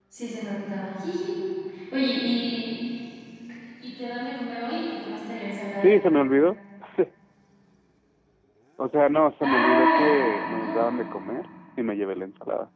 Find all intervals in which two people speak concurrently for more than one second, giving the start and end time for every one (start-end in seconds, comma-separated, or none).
9.4-10.9